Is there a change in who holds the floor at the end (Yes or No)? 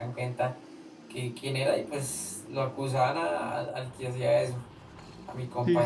No